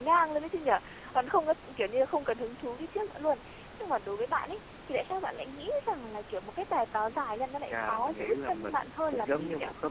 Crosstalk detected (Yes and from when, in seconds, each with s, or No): Yes, from 7.7 s